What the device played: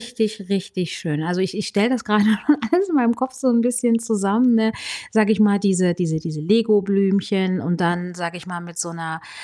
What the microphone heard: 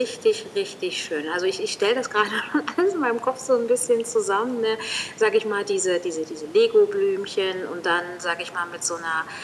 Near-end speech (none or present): none